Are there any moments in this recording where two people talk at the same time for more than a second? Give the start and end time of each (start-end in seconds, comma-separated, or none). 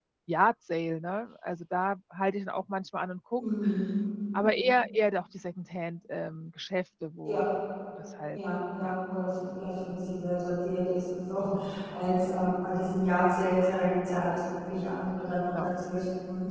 none